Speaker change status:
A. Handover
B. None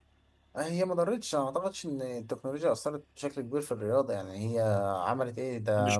A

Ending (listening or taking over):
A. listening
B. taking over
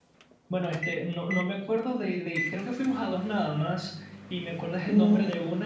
A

